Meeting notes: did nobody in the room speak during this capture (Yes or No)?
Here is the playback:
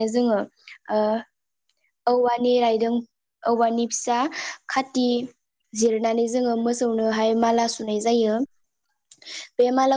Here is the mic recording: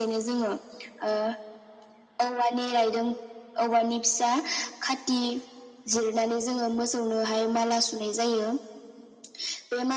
Yes